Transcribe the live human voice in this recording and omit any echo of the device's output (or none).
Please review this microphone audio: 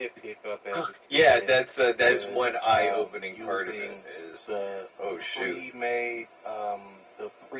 none